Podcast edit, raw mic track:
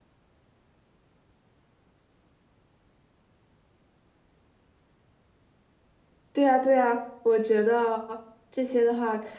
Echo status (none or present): none